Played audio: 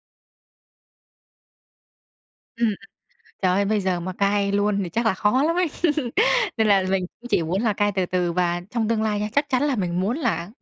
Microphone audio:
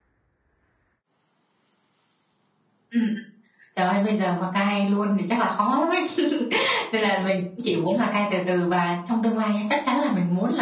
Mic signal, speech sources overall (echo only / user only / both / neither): echo only